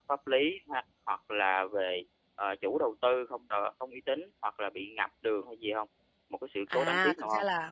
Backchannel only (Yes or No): No